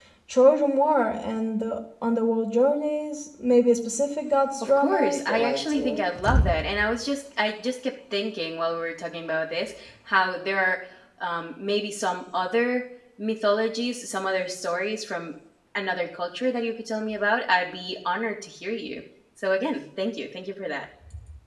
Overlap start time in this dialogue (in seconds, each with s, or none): 4.6 s